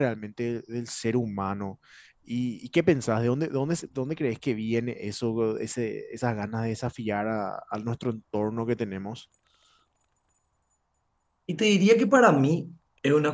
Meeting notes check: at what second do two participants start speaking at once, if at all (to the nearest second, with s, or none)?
none